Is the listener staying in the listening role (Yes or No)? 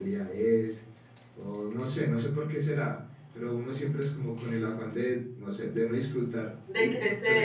Yes